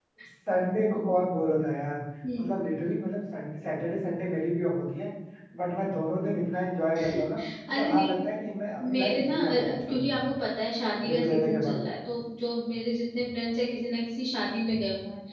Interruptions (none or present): present